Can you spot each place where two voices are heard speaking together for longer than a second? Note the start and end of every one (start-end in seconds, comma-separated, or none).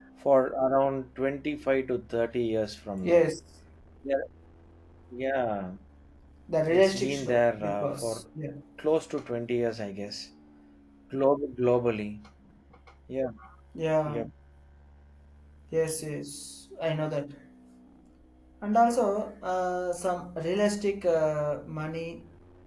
6.7-8.2